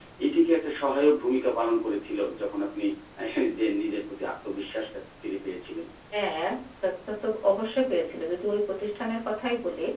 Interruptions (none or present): none